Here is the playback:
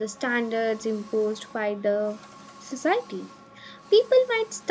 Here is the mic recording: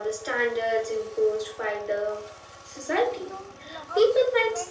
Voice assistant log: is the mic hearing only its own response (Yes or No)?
No